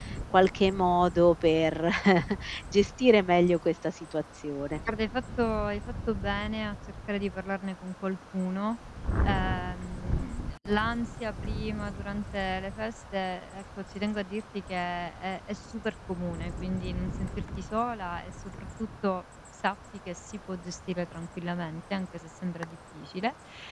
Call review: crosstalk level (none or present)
none